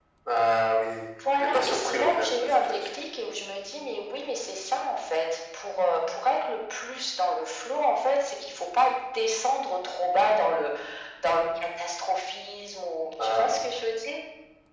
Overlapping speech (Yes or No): Yes